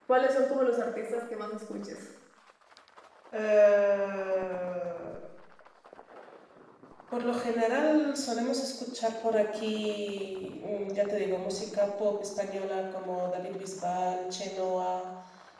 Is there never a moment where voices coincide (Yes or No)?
Yes